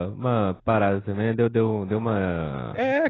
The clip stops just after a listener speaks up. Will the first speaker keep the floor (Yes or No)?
No